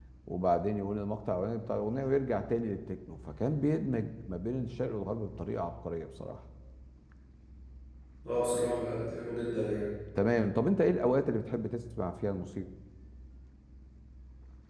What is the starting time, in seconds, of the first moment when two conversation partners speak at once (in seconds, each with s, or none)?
none